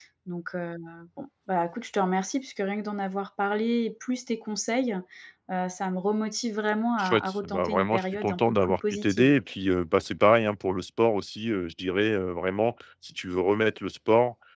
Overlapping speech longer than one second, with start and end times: 7.0-9.3

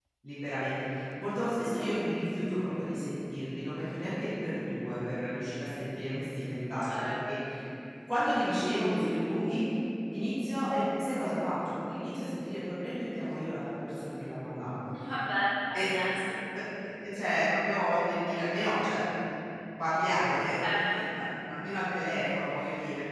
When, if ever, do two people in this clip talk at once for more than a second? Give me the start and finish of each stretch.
none

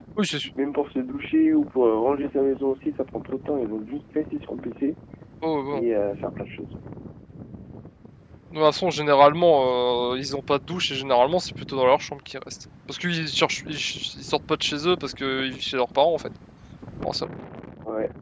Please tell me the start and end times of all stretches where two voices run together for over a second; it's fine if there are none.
none

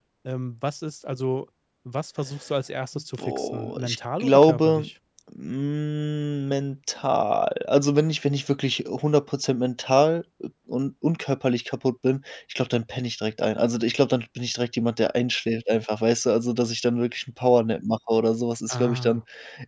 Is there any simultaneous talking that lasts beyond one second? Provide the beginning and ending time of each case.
3.3-4.9

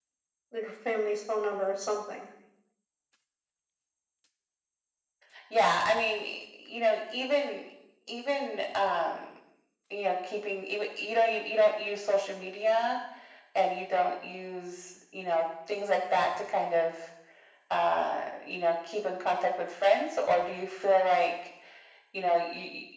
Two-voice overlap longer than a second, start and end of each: none

